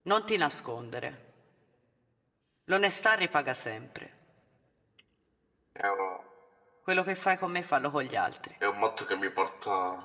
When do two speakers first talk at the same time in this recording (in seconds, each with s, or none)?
none